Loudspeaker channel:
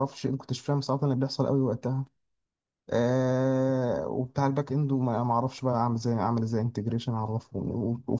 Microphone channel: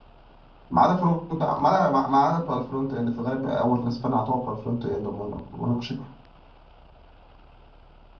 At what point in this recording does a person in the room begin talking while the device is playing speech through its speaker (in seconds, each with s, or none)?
0.7 s